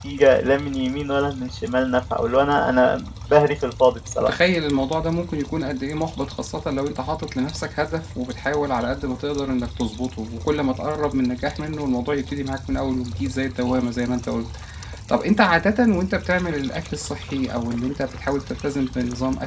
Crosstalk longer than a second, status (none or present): none